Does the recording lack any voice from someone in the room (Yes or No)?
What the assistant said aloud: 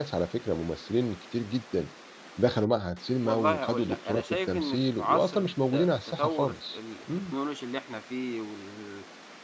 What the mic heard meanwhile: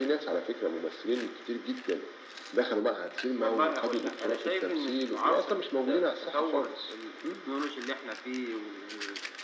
Yes